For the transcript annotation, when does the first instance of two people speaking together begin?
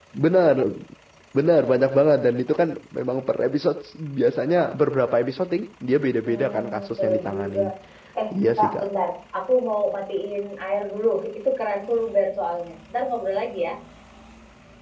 6 s

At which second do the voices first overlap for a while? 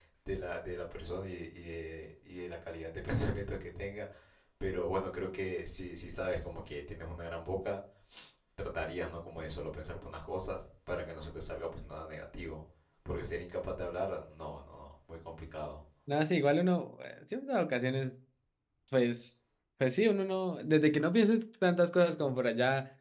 none

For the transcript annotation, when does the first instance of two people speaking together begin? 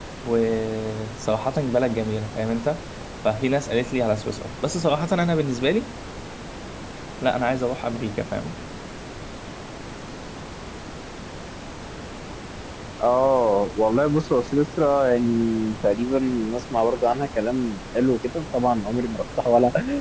none

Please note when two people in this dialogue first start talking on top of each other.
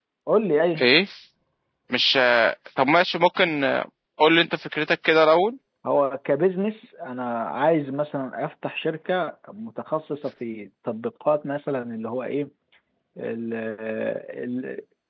none

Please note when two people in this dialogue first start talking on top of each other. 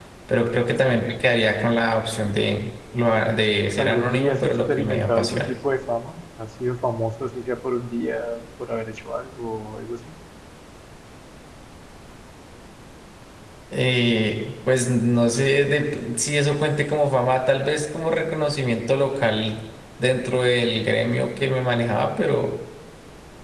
4 s

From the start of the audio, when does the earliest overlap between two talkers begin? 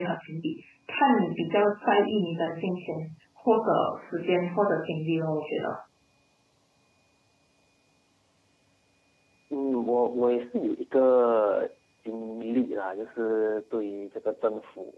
none

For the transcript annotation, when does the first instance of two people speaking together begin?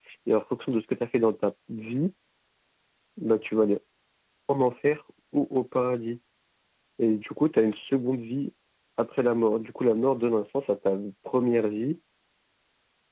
none

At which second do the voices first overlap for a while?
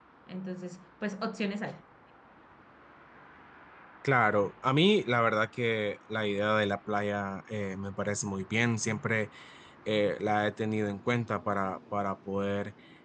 none

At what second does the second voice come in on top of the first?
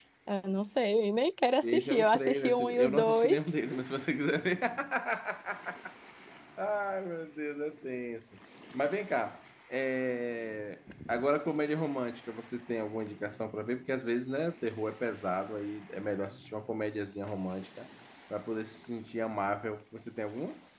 2 s

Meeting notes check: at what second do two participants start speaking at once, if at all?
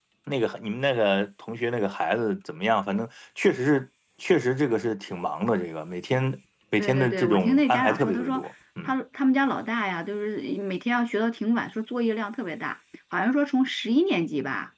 7 s

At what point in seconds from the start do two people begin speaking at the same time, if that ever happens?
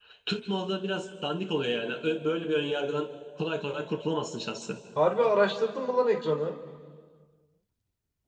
none

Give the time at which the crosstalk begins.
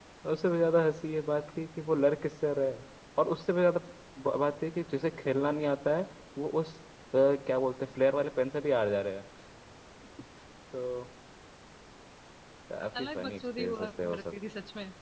13 s

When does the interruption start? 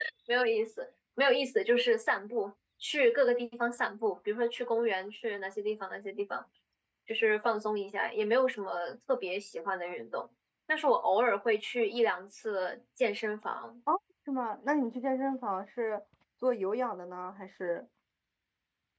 none

